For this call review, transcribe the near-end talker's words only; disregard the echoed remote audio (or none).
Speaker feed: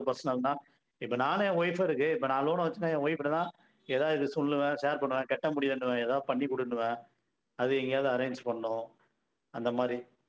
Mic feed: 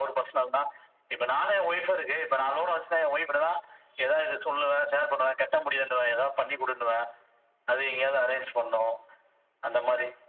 none